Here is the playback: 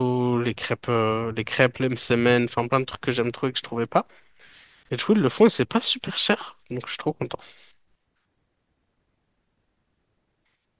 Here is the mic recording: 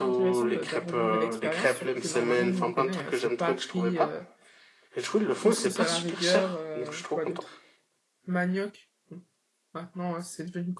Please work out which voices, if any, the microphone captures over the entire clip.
both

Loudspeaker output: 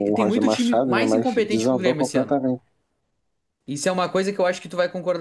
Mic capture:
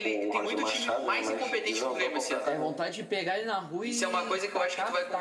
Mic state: both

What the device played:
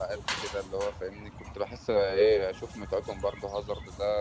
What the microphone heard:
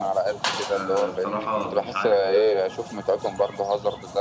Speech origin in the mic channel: both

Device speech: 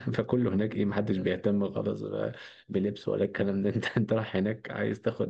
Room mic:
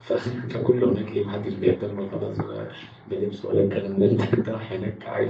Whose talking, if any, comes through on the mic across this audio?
echo only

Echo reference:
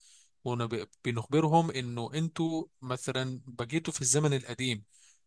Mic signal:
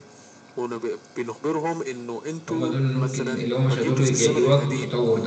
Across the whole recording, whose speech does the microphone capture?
both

